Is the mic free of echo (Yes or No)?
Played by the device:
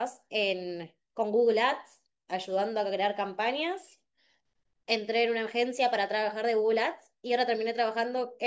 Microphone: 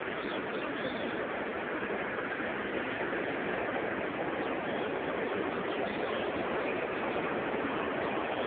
Yes